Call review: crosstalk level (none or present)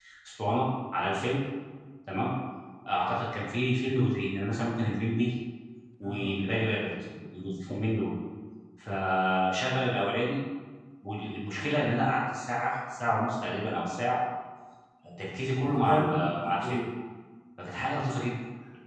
present